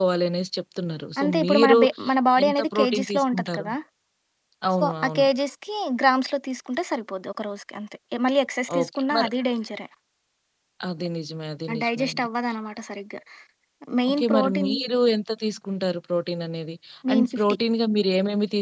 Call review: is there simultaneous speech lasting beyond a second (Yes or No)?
Yes